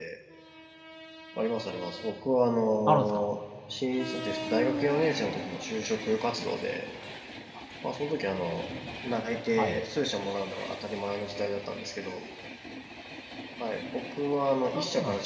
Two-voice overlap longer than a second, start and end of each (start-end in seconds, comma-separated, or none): none